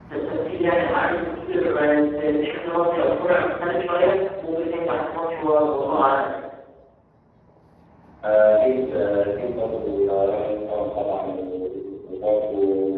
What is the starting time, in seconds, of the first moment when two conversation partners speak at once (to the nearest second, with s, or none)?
none